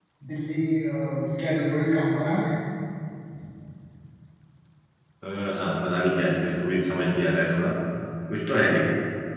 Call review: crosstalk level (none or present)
none